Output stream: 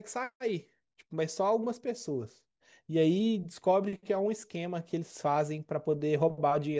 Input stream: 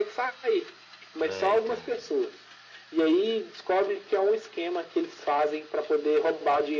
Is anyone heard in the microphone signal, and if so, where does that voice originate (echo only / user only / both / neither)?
both